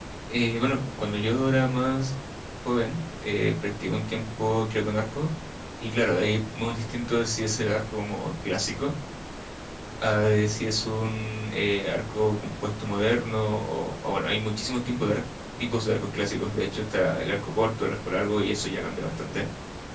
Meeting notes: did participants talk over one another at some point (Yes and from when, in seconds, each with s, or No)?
No